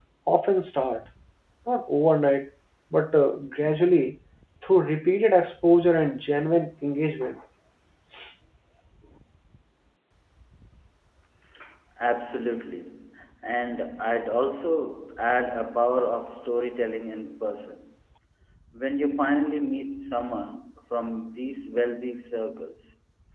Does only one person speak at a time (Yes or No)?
Yes